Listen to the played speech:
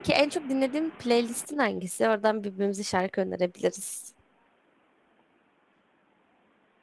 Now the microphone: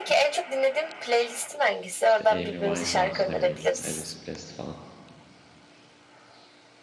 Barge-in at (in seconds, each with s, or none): 2.0 s